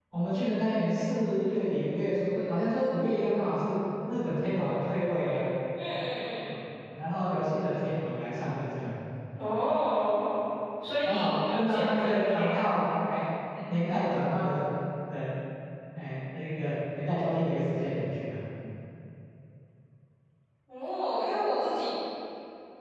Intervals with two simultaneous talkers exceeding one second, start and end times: 11.0-12.6

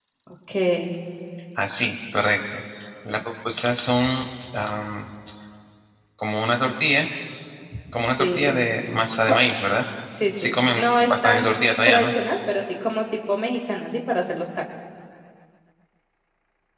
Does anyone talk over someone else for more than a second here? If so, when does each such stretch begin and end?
10.4-12.1

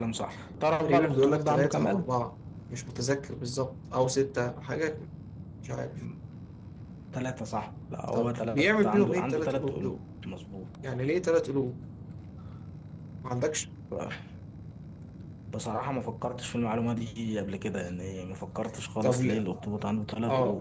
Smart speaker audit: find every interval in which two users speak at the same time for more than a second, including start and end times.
0.8-2.1, 8.1-10.0

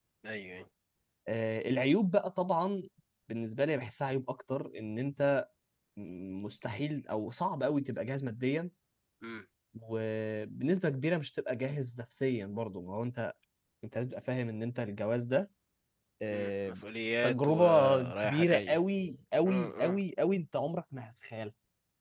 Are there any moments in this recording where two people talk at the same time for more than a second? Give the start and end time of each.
17.2-18.8

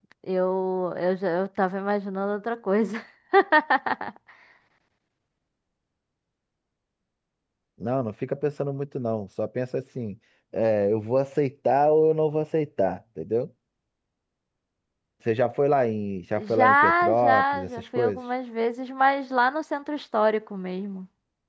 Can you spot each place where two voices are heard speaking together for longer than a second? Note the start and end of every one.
16.4-18.2

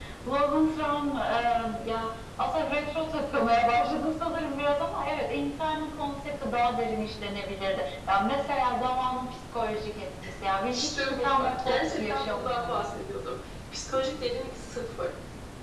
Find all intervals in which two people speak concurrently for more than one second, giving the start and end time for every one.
10.7-12.9

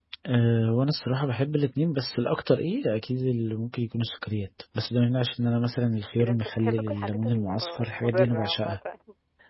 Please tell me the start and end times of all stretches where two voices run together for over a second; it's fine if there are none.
6.2-8.8

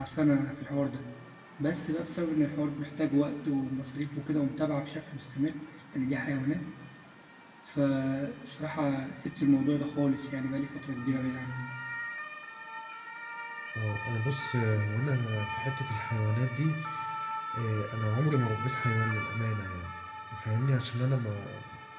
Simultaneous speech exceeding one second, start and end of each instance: none

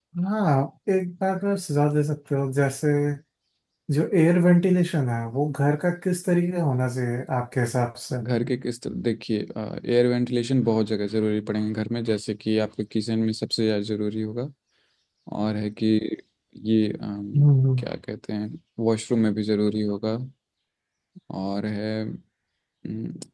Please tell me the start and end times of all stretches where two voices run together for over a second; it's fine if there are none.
none

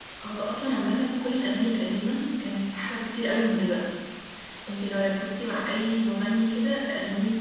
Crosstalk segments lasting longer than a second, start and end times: none

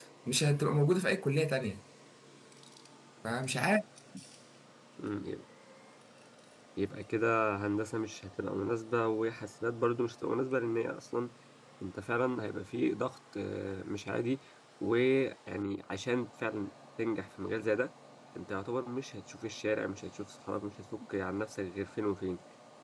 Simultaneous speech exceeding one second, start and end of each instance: none

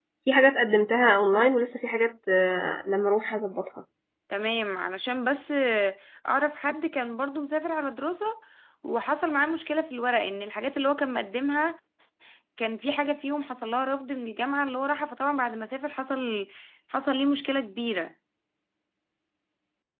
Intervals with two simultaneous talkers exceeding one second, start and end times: none

